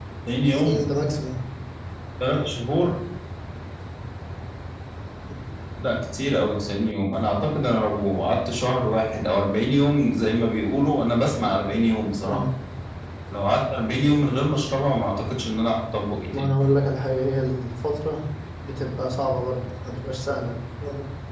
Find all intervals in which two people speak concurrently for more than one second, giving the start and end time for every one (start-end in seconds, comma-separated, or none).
none